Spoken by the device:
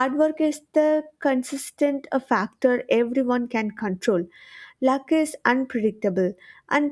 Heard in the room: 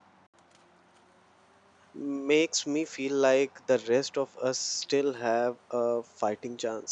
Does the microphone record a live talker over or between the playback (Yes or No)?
Yes